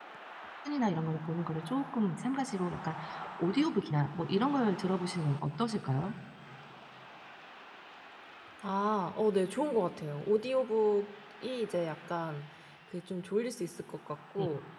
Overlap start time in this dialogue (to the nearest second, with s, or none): none